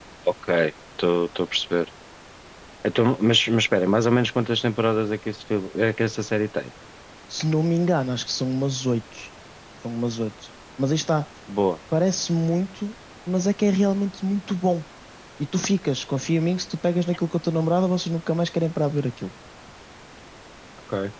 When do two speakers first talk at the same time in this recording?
none

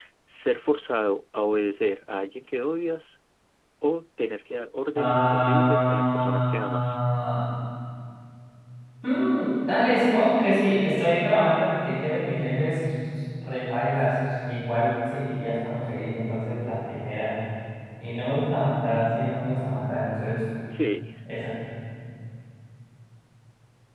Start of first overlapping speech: 5.0 s

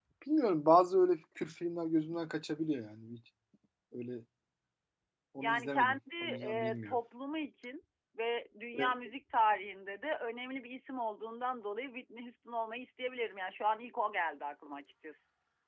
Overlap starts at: 5.4 s

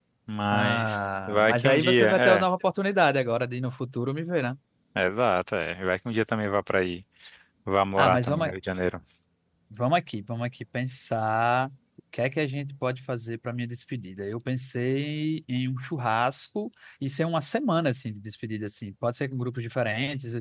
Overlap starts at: 0.5 s

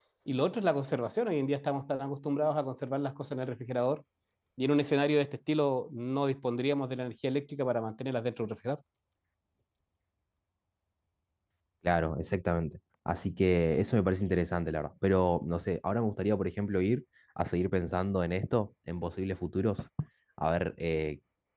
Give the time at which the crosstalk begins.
none

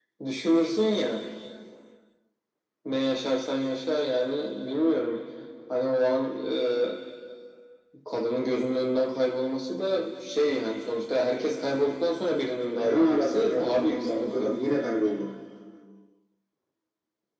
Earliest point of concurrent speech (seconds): 12.8 s

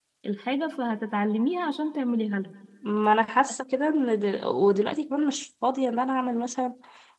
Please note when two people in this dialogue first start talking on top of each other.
none

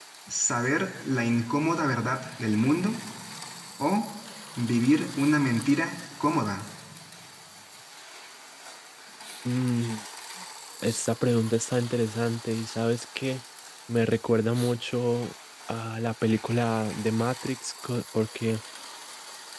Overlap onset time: none

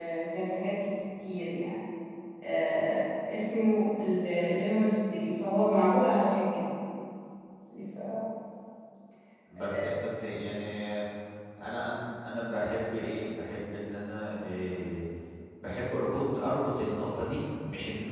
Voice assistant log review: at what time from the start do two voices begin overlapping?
none

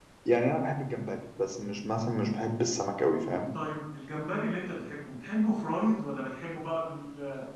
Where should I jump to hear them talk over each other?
none

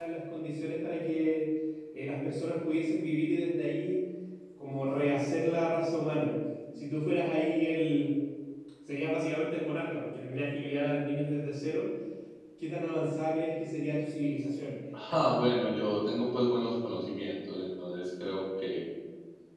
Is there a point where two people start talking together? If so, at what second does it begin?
none

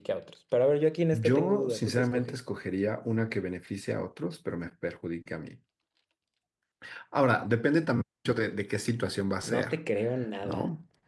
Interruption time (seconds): 1.1 s

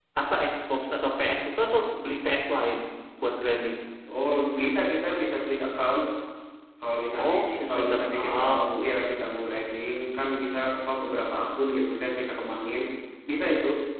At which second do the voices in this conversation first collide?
7.2 s

